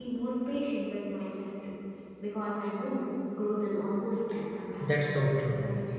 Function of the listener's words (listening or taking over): taking over